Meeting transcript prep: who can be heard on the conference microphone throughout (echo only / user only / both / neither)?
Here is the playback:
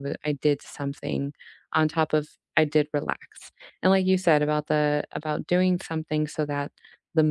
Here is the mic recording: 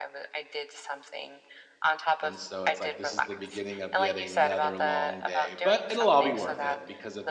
both